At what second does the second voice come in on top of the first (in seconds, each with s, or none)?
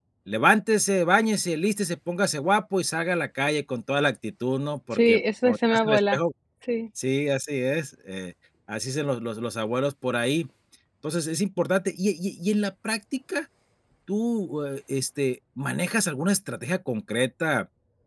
4.9 s